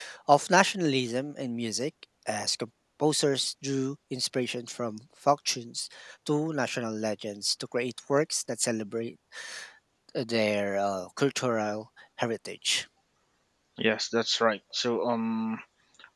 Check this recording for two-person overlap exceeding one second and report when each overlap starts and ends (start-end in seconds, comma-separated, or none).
none